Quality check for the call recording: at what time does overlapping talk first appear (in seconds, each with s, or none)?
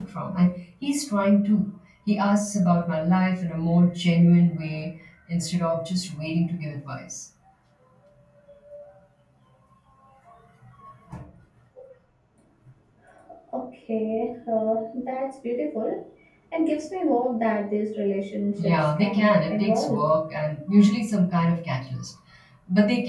18.6 s